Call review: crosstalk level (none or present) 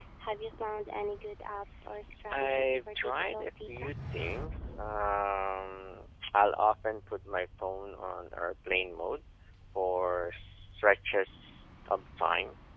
present